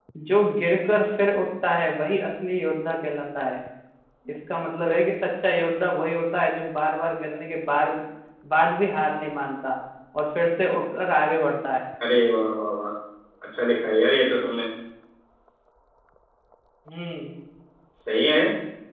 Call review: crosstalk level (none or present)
none